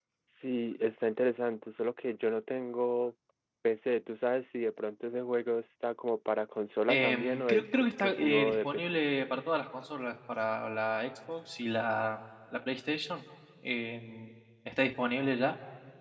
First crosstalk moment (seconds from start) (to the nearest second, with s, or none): 7 s